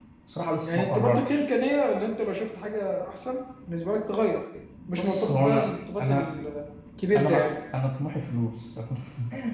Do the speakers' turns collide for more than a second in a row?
Yes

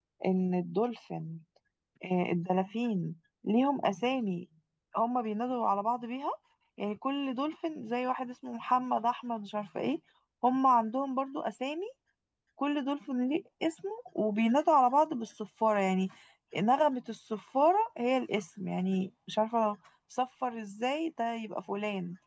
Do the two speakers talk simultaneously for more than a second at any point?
No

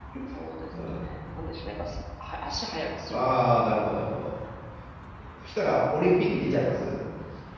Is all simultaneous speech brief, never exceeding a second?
Yes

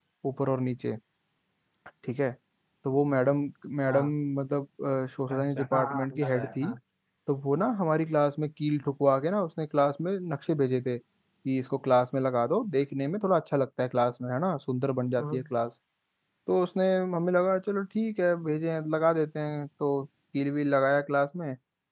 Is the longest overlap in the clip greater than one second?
Yes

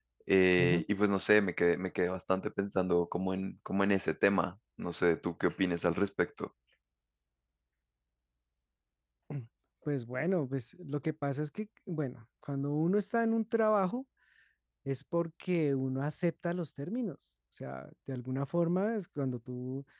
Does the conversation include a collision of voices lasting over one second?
No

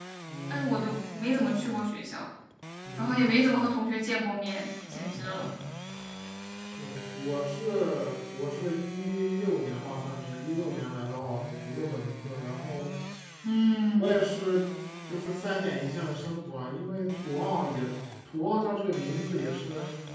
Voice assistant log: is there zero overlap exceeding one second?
Yes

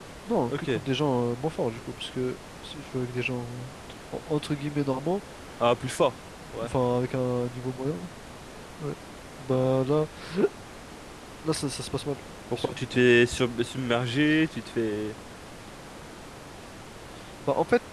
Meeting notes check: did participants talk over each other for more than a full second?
No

